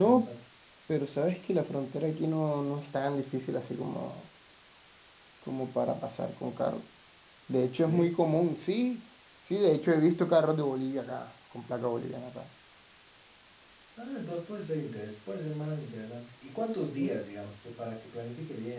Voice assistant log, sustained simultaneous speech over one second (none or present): none